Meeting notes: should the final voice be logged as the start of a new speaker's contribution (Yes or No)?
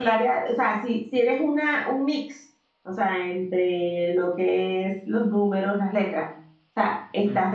No